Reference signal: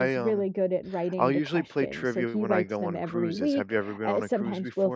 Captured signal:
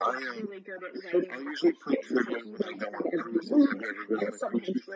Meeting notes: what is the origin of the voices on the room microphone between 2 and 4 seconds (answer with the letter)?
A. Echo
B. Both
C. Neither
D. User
A